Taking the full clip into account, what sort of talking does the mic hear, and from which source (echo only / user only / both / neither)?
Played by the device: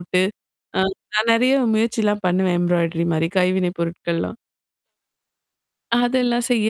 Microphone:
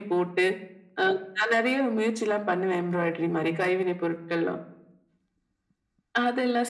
echo only